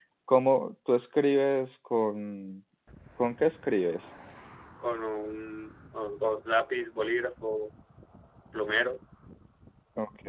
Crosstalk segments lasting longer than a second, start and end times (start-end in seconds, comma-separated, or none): none